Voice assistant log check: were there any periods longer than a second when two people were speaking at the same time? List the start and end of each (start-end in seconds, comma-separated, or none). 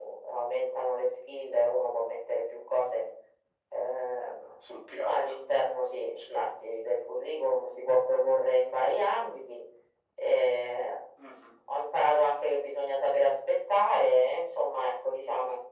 none